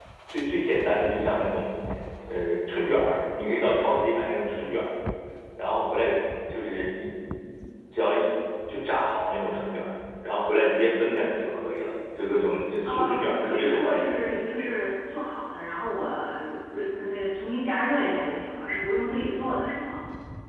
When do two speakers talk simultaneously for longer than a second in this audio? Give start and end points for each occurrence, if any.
12.8-14.1

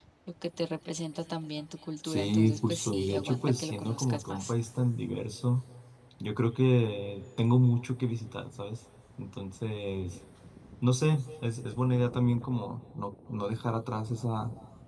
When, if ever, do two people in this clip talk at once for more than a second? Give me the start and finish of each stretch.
2.0-4.5

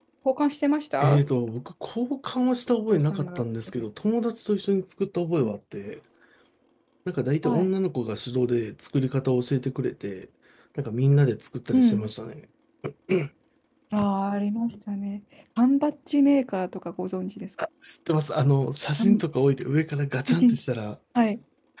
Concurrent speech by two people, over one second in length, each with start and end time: none

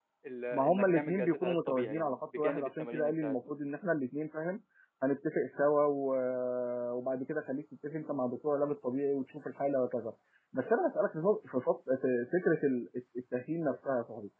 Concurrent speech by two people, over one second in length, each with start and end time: 0.5-3.4

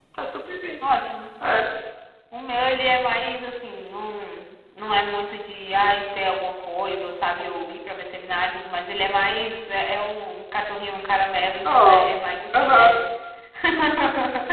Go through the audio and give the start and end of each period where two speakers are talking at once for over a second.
none

